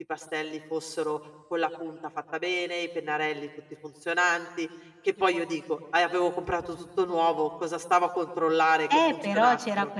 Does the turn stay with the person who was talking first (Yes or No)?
No